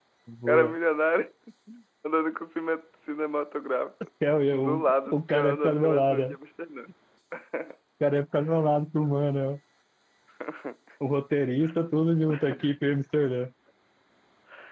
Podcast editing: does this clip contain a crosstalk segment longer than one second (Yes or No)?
Yes